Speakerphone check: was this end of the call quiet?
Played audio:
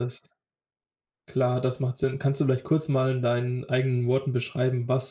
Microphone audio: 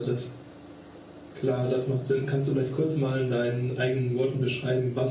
Yes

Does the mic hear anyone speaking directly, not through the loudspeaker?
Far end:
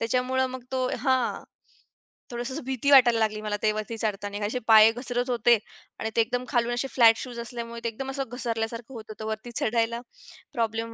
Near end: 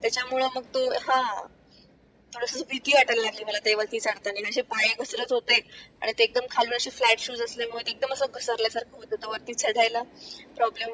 No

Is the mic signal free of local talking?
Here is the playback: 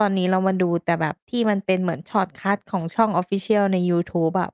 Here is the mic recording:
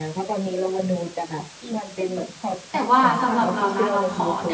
No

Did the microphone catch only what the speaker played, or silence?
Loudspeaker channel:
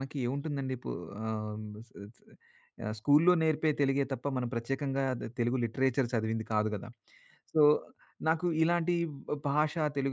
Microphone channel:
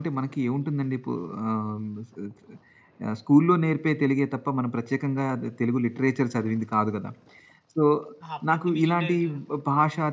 No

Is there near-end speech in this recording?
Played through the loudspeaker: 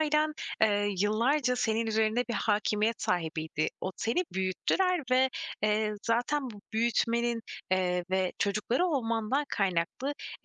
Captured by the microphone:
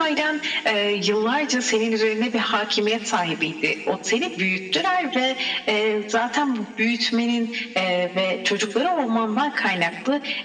No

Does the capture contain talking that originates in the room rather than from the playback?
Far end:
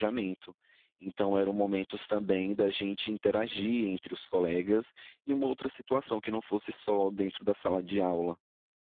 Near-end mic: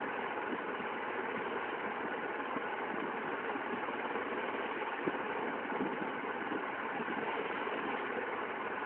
No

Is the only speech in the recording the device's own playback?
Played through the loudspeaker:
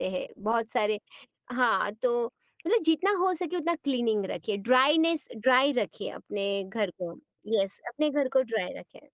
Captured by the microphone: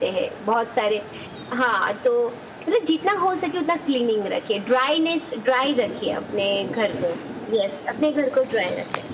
Yes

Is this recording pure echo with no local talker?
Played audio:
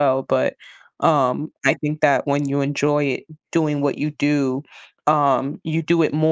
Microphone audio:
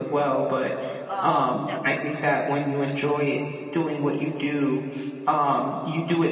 No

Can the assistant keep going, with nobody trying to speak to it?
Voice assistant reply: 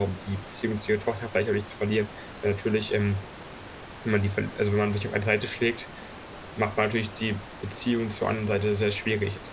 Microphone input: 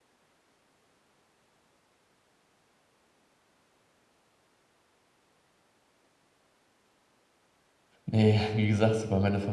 No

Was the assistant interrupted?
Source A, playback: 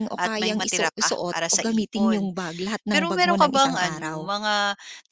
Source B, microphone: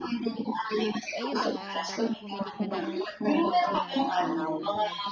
Yes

